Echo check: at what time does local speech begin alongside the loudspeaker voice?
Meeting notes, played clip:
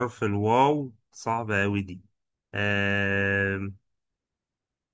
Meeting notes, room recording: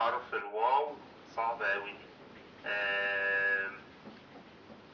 none

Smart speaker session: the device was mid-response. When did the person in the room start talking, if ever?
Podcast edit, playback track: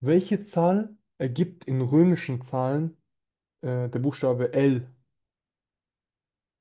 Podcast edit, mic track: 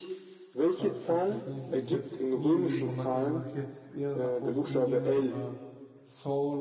0.6 s

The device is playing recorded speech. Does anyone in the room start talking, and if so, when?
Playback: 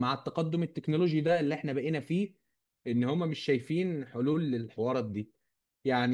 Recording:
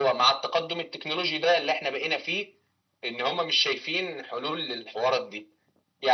none

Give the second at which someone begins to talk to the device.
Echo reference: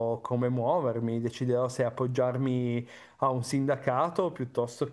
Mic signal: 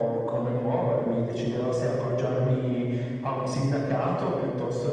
none

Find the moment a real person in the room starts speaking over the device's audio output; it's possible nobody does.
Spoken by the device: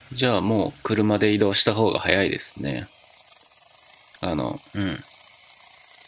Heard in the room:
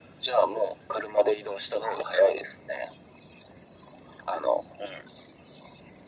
none

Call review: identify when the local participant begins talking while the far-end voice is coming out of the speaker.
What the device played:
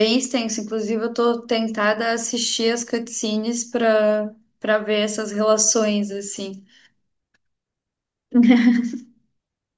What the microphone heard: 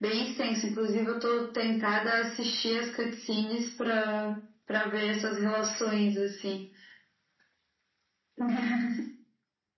none

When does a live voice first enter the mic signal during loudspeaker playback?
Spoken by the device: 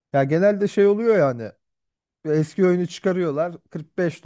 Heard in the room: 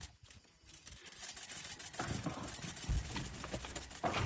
none

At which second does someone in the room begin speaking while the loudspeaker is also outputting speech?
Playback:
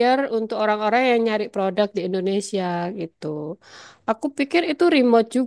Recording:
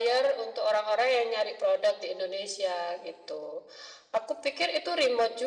none

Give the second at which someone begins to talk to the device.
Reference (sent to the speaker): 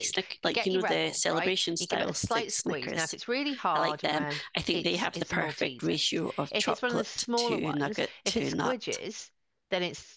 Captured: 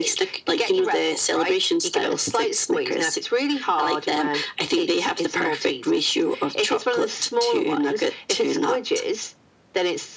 none

